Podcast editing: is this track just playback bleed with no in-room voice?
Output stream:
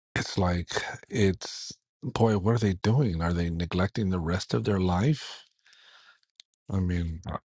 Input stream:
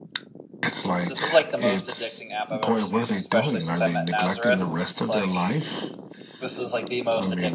No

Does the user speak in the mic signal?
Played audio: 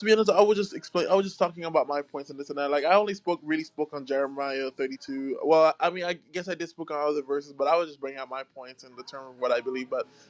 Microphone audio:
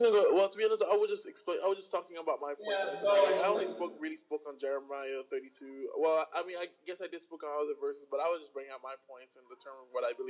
Yes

